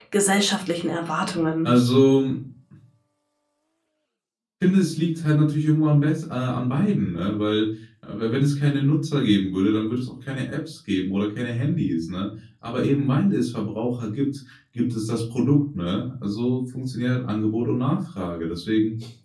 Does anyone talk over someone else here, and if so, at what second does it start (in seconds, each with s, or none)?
none